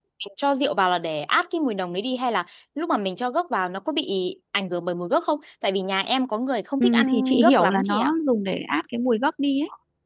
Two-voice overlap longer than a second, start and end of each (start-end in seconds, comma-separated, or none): 6.8-8.1